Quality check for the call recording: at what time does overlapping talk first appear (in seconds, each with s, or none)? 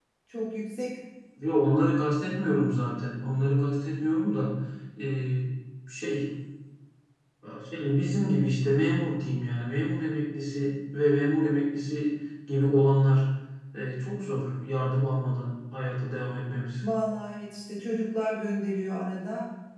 none